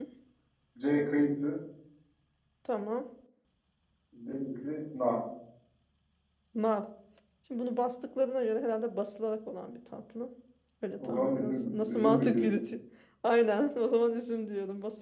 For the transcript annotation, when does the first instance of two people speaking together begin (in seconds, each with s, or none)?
11.0 s